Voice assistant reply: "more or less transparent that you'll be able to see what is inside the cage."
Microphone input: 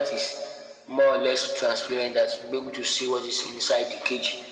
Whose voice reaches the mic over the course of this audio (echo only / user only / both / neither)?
echo only